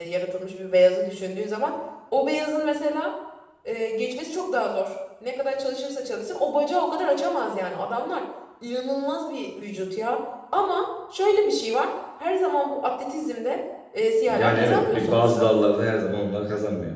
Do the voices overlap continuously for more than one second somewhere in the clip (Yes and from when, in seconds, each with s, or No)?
Yes, from 14.3 s